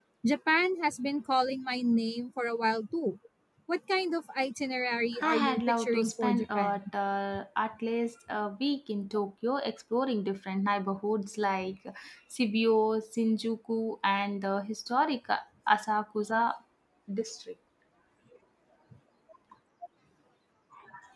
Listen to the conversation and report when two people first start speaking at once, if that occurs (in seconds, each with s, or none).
5.2 s